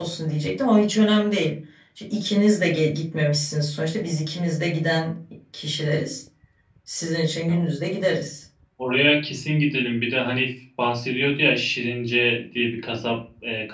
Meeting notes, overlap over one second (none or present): none